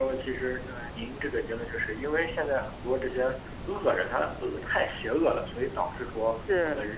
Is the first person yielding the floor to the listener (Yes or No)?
No